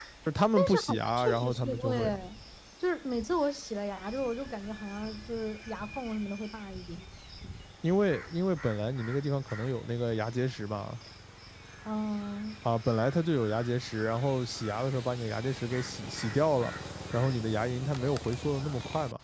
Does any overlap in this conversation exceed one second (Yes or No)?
Yes